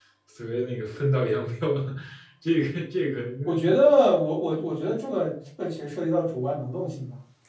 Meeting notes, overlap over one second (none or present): none